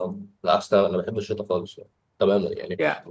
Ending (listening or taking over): listening